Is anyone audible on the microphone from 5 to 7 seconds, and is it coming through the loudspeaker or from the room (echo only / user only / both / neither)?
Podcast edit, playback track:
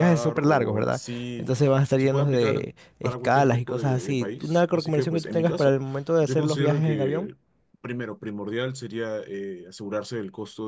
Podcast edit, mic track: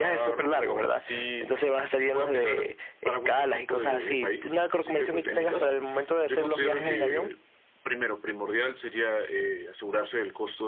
echo only